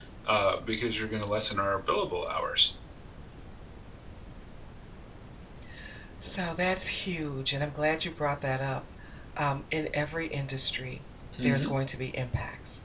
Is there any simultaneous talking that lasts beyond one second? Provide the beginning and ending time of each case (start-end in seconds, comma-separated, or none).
none